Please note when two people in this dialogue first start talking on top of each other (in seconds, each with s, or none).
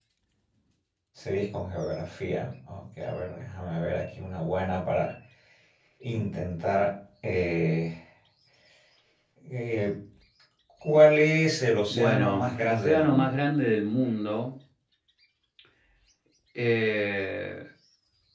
11.9 s